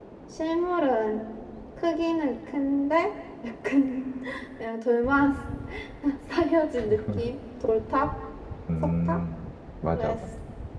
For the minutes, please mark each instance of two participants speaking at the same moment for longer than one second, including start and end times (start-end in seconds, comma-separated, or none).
none